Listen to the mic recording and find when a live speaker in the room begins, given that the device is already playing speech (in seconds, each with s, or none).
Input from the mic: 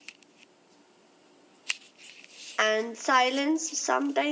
2.6 s